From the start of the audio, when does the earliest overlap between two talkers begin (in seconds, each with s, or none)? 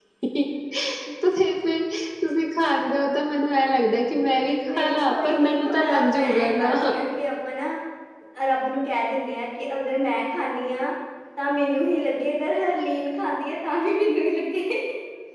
4.5 s